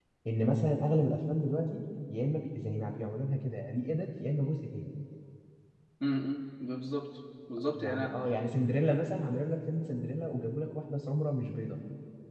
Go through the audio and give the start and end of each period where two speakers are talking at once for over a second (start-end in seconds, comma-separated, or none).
none